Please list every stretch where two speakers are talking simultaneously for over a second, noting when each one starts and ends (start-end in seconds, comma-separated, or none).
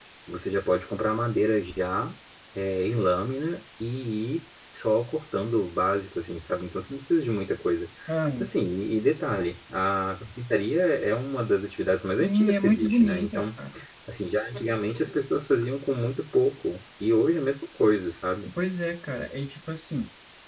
12.0-13.4